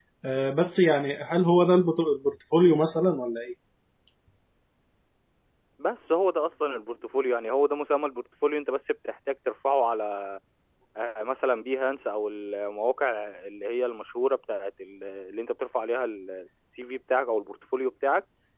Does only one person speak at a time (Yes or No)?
Yes